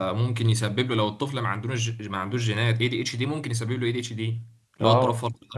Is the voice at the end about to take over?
Yes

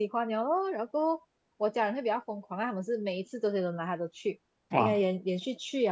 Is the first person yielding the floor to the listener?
No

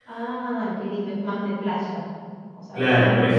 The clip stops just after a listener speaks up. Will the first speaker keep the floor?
No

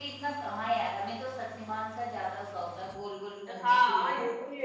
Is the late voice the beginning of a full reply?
Yes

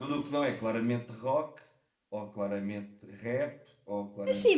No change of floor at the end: No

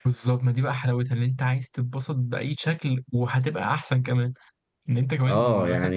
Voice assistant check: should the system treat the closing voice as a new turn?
Yes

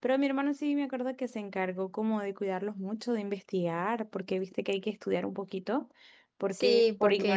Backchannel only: No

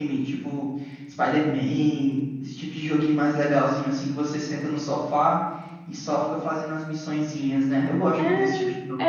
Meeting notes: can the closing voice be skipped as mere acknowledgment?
No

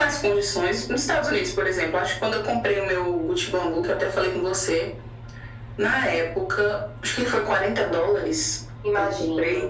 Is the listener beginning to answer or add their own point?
No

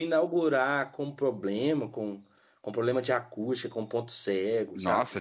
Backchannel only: No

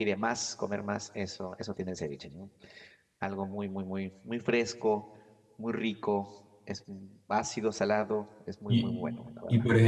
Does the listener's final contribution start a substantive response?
Yes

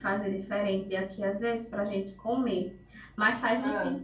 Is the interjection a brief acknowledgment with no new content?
Yes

